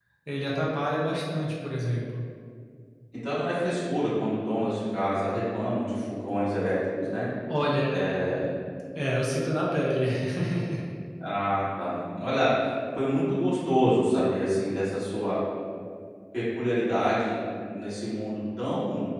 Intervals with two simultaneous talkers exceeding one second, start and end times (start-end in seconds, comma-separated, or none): none